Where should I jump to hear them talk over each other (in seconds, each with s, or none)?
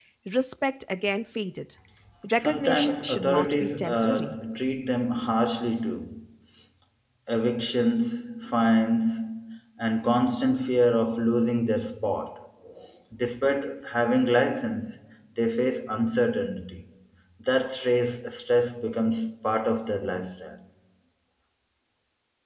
2.4 s